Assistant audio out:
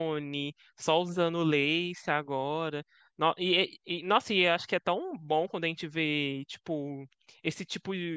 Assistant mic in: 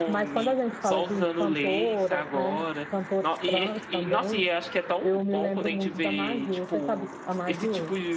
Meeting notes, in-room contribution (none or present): present